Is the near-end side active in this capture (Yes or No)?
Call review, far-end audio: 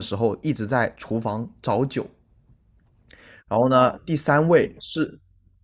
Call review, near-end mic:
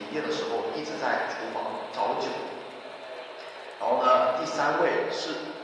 No